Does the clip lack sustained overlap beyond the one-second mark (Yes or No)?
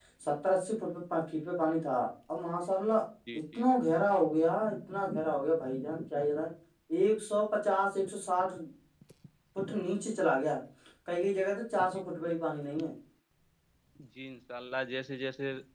Yes